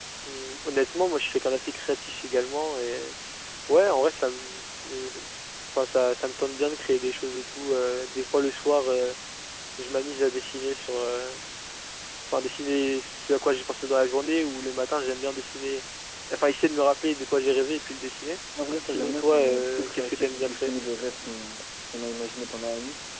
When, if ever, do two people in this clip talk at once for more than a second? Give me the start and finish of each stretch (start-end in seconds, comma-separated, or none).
18.9-20.7